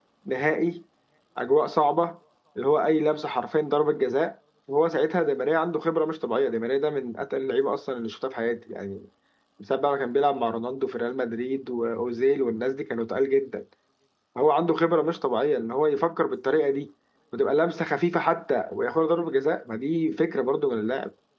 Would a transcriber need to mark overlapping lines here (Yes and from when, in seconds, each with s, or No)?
No